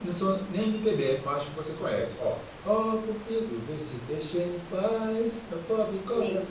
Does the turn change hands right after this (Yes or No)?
No